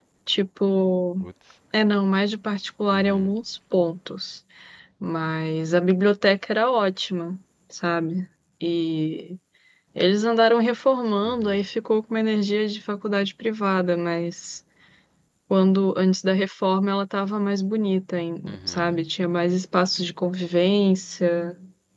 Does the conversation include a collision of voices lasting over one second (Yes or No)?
No